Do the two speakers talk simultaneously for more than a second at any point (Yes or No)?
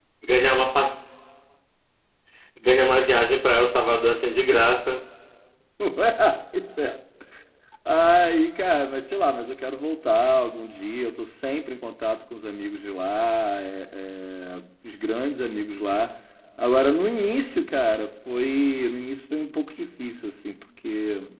No